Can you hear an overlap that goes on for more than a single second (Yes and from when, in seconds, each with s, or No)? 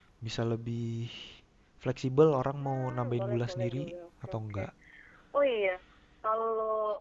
Yes, from 2.6 s